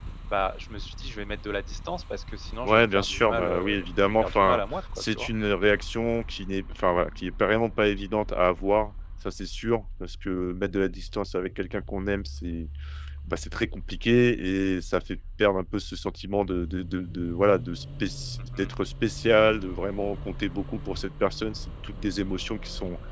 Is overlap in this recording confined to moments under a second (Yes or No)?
No